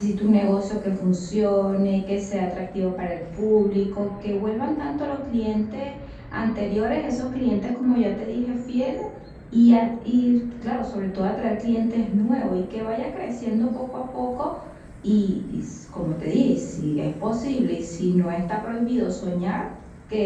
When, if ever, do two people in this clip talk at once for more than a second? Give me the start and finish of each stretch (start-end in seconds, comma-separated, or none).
none